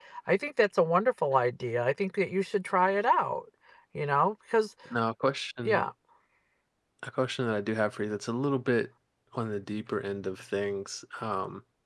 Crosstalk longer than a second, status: none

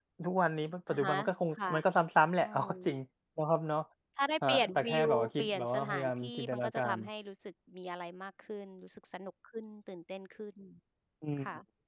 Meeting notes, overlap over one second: present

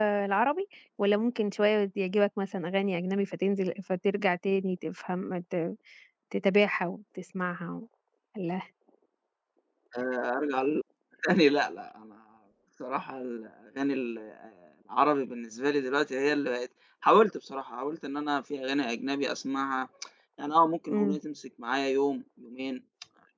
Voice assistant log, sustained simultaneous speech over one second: none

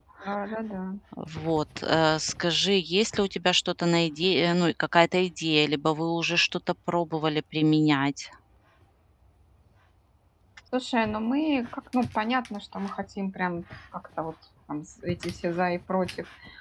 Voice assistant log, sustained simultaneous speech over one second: none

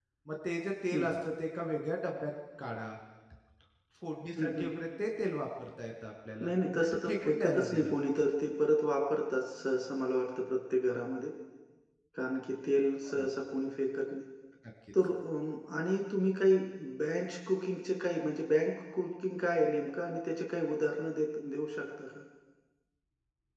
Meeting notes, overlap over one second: present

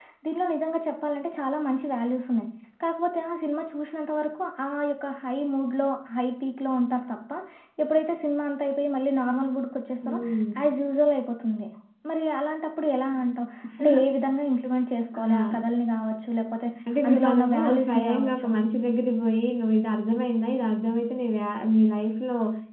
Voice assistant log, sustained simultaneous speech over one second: present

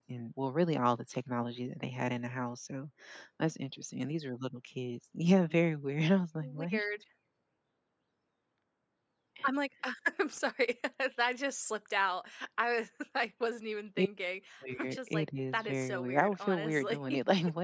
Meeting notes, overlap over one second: present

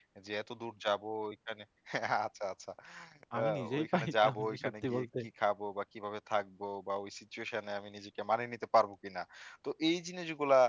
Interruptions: present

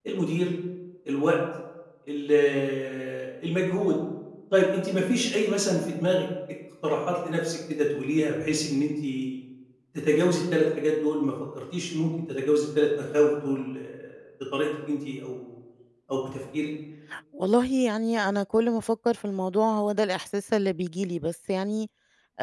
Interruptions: none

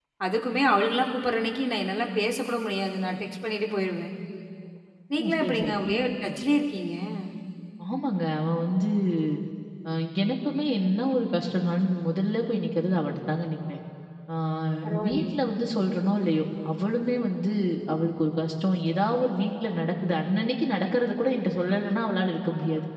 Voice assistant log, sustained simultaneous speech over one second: none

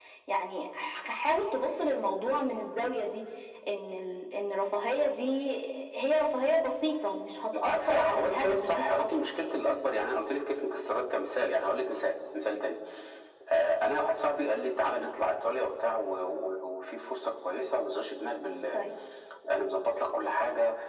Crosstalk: present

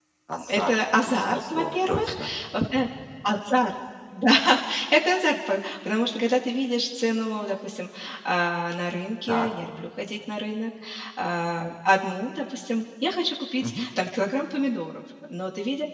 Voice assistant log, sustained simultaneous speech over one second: present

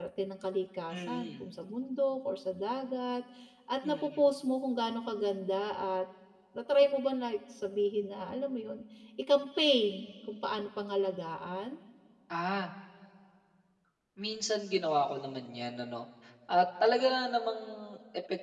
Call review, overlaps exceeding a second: none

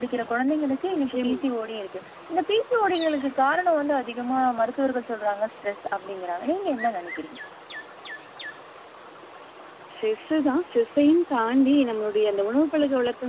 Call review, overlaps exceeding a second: none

